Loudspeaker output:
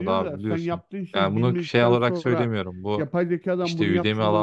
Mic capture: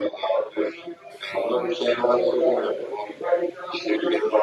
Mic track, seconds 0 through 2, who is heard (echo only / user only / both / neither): echo only